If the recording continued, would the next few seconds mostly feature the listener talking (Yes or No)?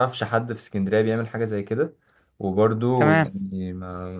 No